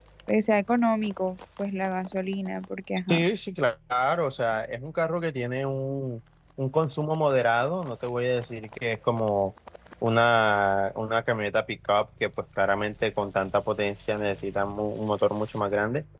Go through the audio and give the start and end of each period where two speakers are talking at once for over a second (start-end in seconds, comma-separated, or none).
none